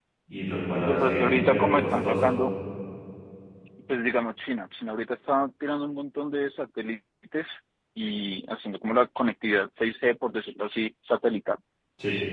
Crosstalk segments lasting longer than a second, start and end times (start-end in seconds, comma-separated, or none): 0.9-2.3